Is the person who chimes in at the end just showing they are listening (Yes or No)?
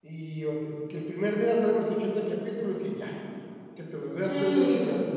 No